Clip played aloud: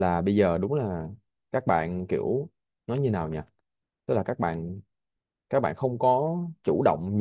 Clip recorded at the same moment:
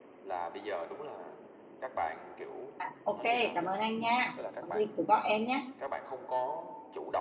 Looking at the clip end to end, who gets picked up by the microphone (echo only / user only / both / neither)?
both